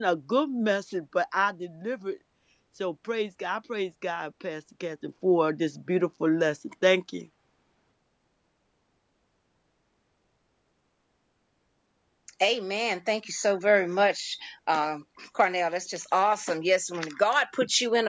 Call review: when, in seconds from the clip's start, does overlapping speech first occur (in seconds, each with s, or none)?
none